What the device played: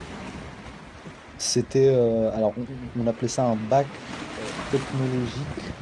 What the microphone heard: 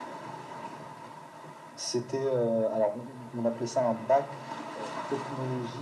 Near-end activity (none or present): none